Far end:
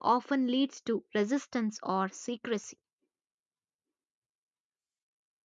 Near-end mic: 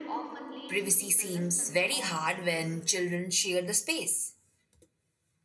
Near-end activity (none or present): present